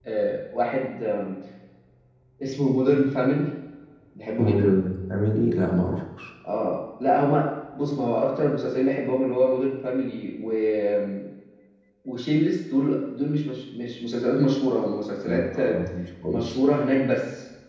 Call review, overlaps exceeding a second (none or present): none